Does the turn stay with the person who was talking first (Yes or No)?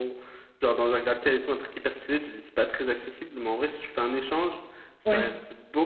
Yes